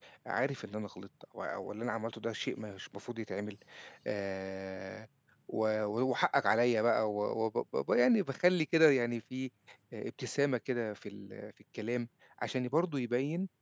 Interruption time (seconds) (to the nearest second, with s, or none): none